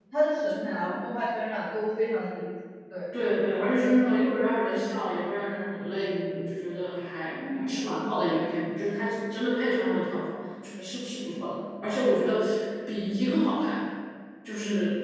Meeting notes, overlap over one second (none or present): none